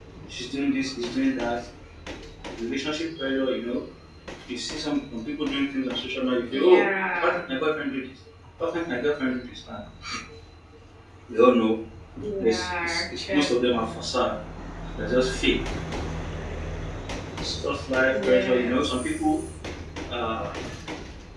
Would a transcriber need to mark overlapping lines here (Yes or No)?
Yes